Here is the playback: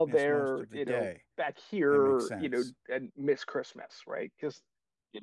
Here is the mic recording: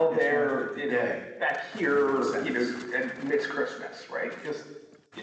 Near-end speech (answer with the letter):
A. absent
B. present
A